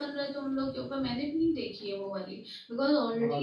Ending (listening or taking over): listening